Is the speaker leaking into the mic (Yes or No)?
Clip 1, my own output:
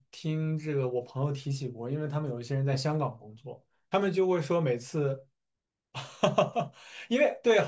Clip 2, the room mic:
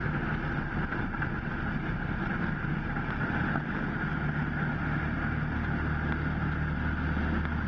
No